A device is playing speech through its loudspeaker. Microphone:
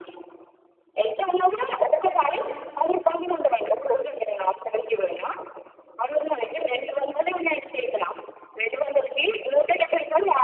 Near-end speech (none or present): present